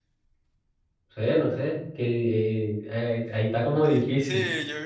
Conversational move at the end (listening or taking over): taking over